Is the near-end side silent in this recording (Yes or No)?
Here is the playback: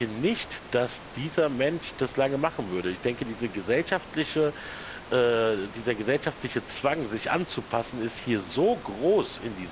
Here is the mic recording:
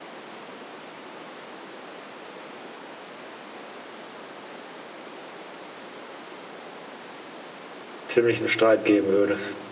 No